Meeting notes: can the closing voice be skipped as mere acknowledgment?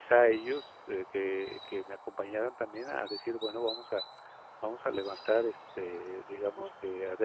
Yes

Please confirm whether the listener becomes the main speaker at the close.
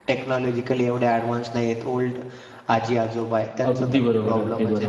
Yes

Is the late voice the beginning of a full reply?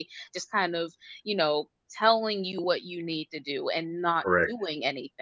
No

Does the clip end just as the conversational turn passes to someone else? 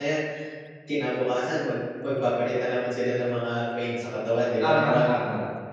Yes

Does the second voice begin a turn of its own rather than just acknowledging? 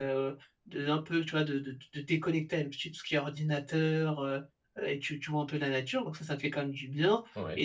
No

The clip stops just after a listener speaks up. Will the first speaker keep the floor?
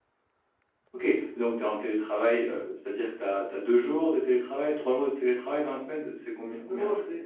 No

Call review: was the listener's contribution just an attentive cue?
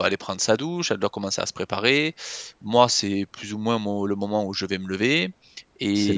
No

